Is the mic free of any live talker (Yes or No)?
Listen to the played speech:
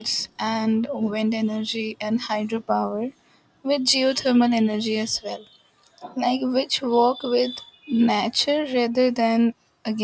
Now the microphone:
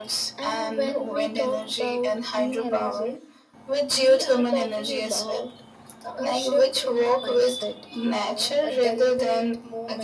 No